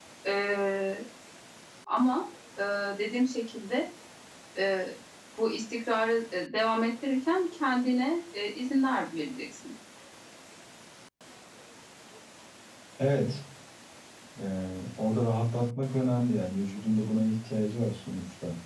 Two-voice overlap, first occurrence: none

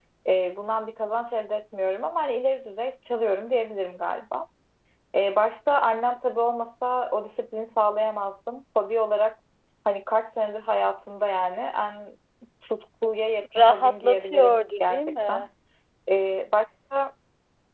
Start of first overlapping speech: 13.5 s

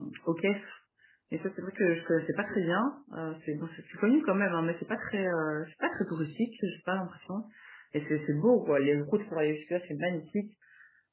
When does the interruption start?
none

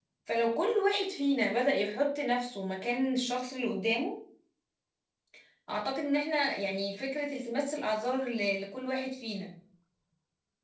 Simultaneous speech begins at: none

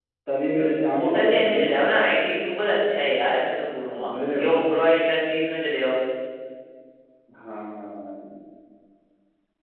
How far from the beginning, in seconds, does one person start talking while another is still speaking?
0.6 s

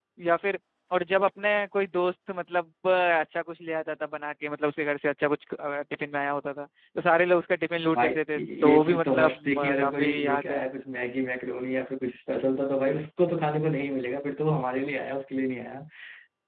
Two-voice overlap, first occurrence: 8.0 s

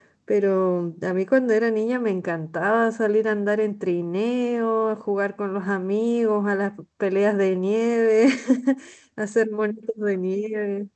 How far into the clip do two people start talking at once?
none

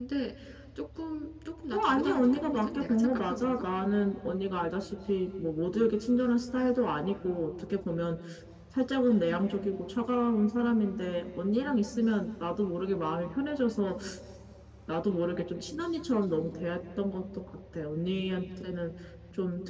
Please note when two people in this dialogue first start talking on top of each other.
1.7 s

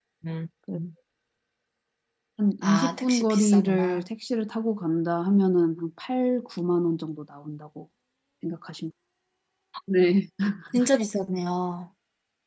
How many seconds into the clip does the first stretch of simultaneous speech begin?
2.6 s

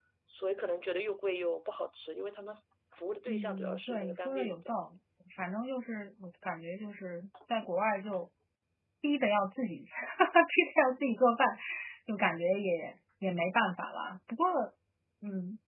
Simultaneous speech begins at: 3.3 s

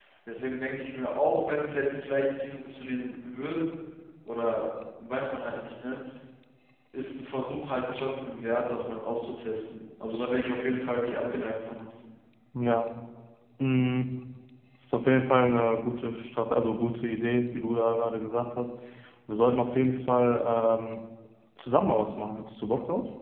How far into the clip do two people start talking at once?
none

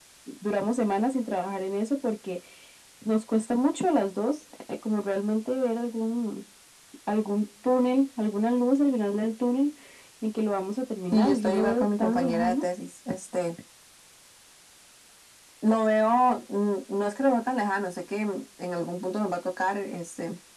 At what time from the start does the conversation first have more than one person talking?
11.1 s

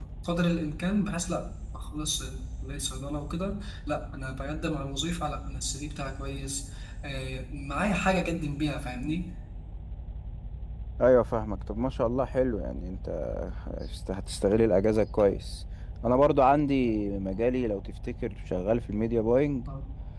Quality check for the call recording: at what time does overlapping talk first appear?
none

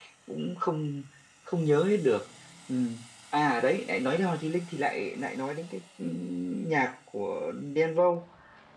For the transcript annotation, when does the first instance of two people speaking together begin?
none

